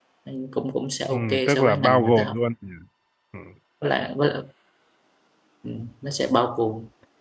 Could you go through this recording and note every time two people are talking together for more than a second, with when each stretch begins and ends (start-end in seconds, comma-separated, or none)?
1.1-2.3